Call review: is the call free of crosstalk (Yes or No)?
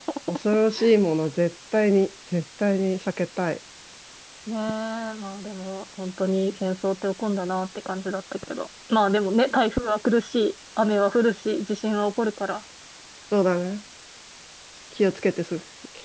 Yes